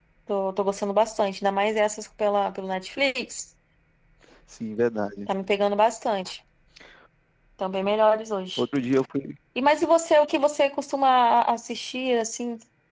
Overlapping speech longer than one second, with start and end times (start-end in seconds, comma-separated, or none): none